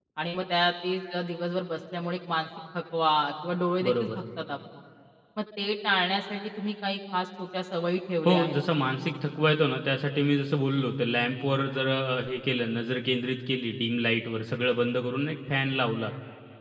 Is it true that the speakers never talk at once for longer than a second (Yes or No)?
Yes